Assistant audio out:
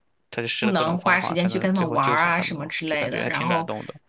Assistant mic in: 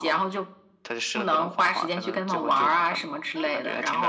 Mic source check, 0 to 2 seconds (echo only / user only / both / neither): echo only